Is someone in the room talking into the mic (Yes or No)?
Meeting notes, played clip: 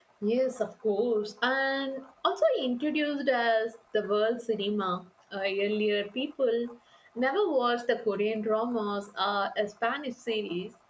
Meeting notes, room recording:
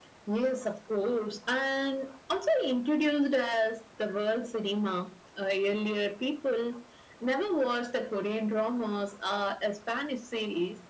No